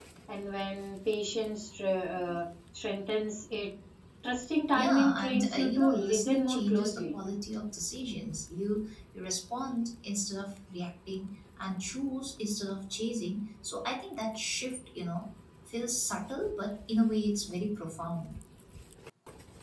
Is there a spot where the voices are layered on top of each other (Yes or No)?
Yes